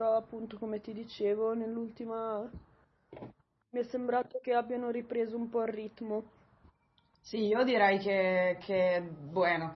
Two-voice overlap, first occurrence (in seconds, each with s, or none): none